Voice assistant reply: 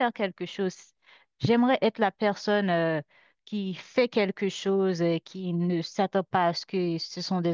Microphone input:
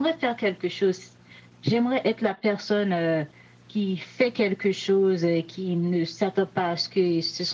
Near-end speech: none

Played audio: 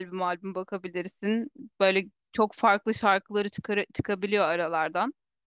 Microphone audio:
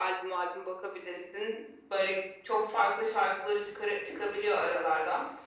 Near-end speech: none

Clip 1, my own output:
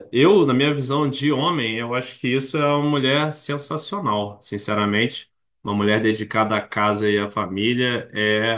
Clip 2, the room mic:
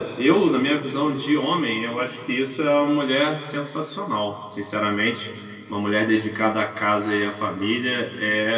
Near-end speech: none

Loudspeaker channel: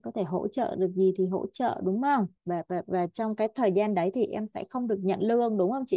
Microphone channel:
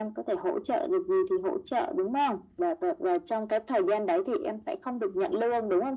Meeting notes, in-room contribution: none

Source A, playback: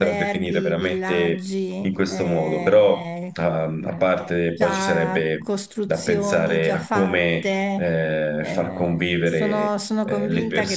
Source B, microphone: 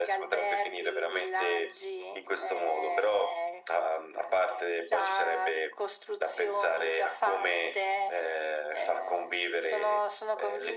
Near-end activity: none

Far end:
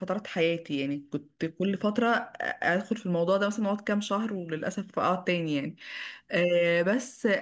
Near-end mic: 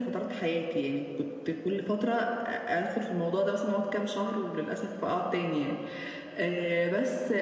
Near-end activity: none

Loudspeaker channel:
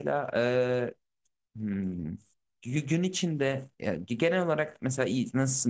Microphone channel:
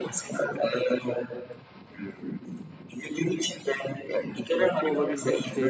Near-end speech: present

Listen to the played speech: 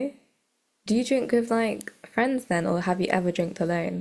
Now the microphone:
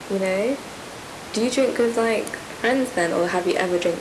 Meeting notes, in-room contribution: none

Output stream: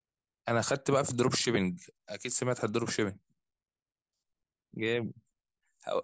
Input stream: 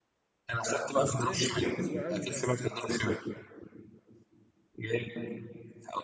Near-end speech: present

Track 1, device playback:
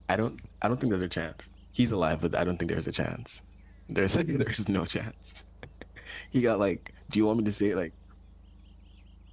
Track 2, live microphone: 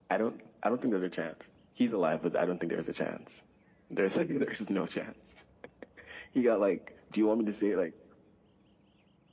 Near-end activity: none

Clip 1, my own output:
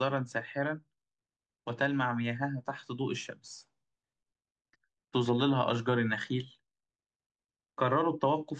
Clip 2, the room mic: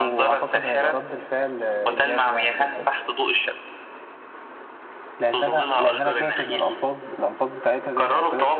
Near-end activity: present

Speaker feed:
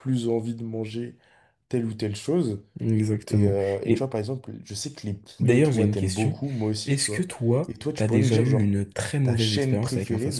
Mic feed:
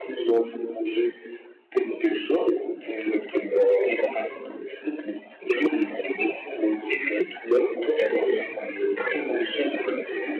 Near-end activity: none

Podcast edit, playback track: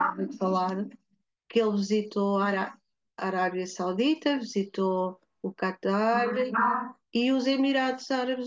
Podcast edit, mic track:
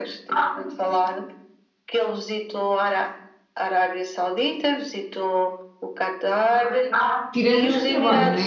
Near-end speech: present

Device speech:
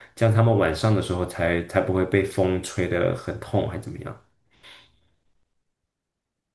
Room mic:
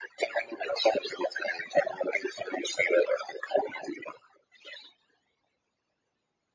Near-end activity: none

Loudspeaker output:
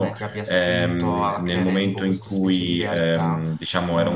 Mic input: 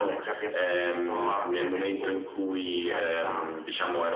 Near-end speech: none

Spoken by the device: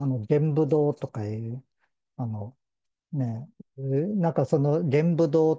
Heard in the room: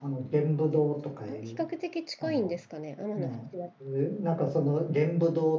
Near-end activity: present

